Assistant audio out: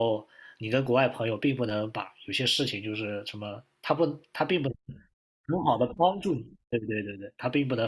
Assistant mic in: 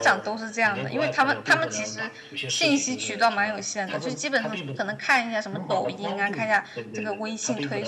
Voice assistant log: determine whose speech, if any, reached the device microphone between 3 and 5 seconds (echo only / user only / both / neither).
both